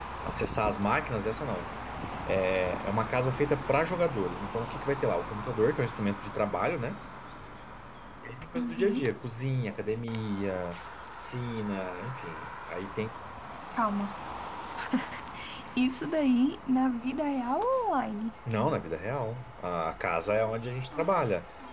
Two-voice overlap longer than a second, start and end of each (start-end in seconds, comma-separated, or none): none